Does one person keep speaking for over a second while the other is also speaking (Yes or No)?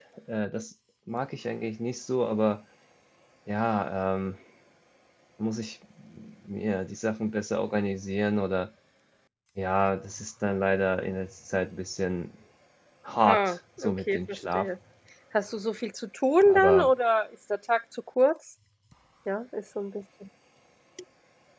Yes